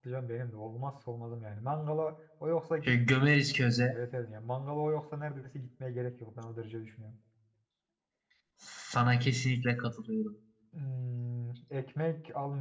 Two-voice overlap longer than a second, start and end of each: none

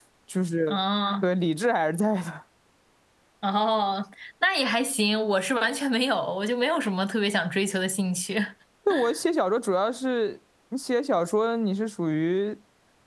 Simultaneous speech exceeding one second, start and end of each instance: none

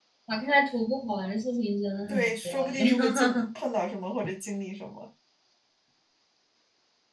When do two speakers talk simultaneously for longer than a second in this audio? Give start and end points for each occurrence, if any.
2.1-3.3

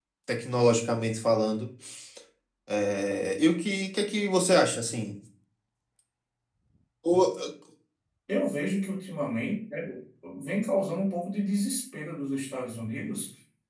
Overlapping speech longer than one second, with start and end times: none

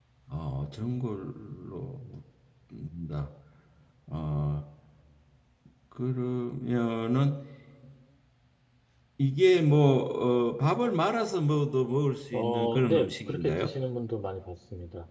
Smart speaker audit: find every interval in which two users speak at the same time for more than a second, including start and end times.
12.3-13.7

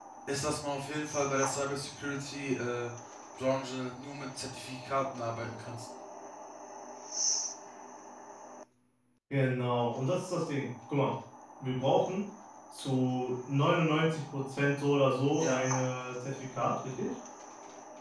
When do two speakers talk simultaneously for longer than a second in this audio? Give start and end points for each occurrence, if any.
none

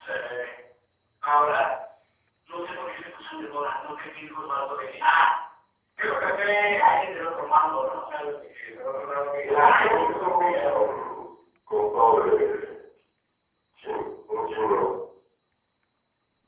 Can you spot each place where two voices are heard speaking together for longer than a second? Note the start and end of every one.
9.4-10.8

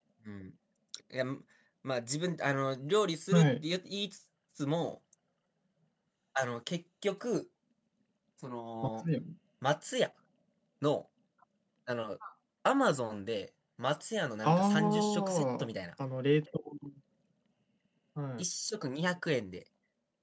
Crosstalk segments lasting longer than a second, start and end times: 14.4-15.7

